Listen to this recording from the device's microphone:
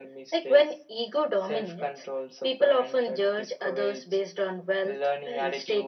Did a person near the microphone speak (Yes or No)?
No